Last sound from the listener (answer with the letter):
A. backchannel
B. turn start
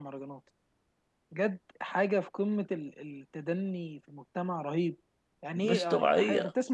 A